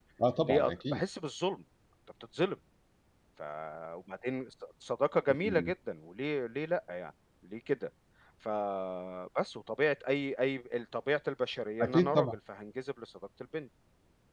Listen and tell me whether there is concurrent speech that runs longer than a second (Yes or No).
No